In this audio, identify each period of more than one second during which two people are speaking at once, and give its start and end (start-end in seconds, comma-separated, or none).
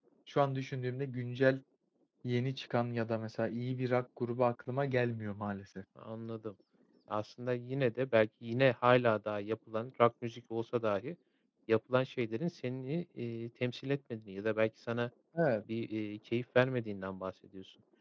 none